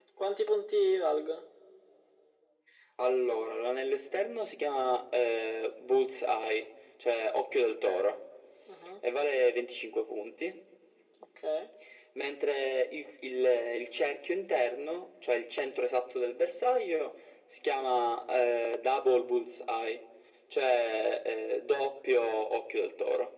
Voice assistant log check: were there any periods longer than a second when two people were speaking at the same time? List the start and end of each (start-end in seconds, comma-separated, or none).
none